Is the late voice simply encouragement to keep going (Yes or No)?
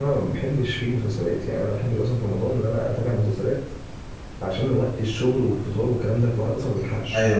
No